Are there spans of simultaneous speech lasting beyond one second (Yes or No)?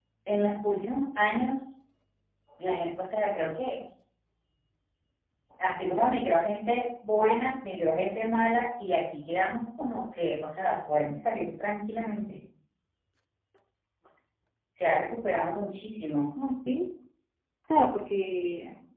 No